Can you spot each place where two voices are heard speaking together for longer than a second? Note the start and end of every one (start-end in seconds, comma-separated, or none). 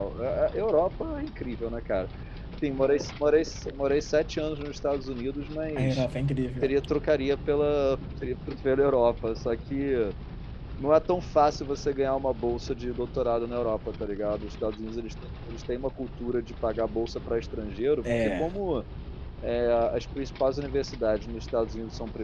none